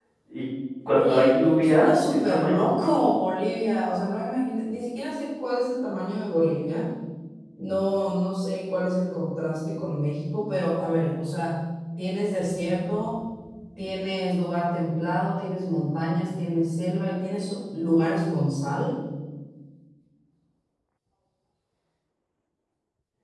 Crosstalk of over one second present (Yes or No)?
Yes